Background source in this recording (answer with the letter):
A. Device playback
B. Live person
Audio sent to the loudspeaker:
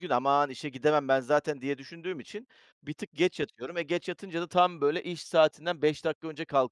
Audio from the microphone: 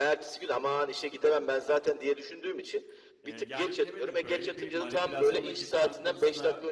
B